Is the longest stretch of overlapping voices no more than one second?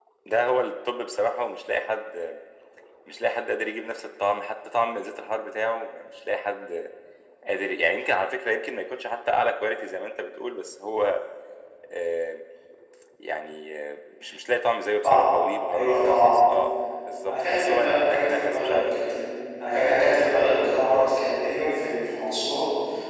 No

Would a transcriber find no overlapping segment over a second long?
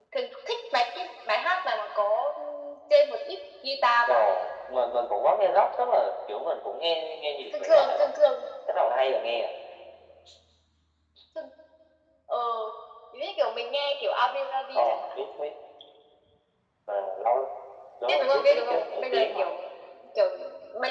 No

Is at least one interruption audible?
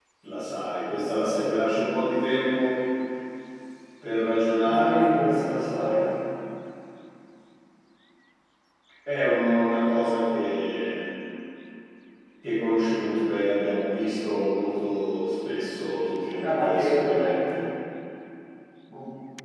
Yes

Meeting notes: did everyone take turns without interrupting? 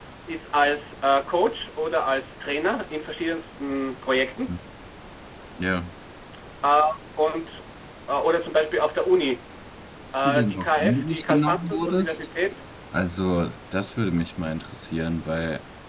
No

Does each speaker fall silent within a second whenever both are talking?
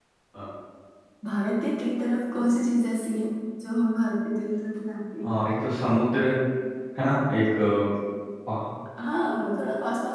Yes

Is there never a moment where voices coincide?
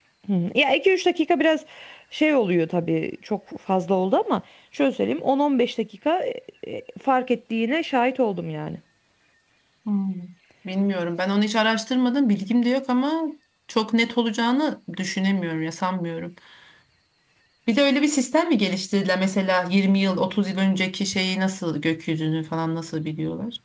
Yes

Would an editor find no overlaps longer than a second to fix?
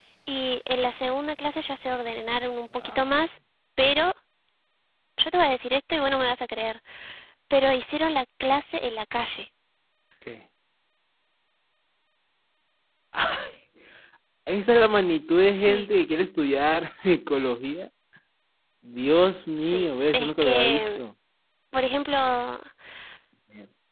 No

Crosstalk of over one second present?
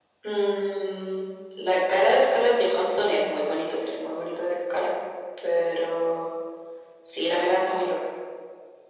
No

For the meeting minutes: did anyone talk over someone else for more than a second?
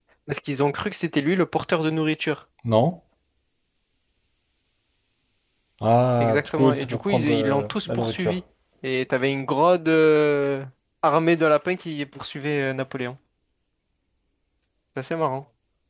Yes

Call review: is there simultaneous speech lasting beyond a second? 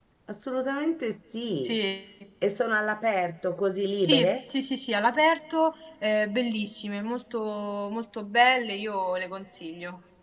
No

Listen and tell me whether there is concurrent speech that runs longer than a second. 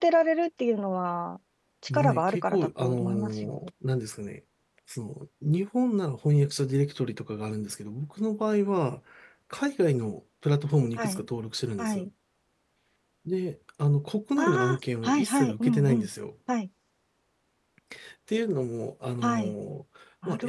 Yes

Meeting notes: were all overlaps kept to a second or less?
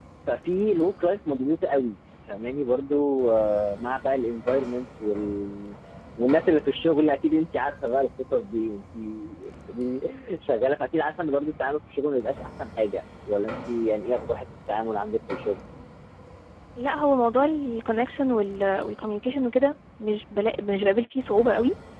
Yes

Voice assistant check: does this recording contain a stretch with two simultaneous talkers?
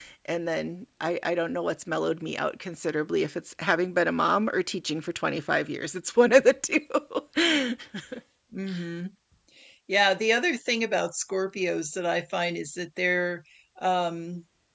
No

